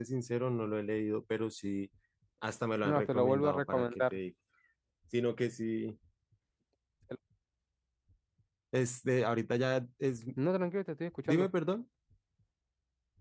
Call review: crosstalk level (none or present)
present